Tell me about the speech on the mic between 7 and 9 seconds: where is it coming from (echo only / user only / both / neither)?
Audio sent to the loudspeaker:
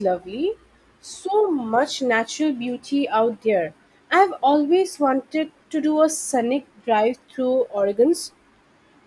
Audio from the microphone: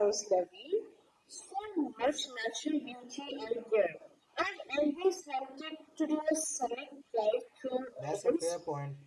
both